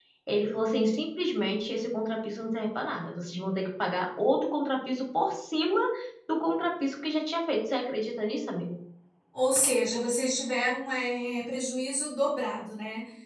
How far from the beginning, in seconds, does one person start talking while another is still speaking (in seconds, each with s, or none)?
none